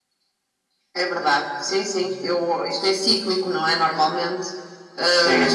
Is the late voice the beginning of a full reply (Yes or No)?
Yes